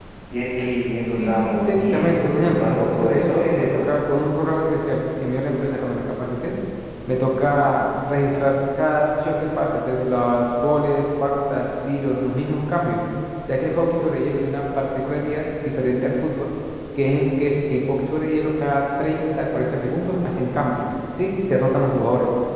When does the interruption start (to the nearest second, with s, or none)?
1 s